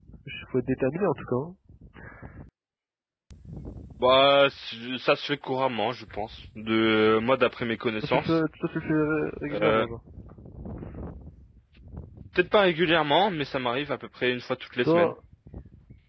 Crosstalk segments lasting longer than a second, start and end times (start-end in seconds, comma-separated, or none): none